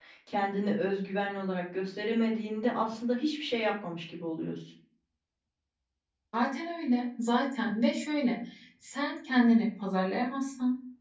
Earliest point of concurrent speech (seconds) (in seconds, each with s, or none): none